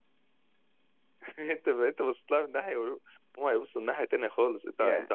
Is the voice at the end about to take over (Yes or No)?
No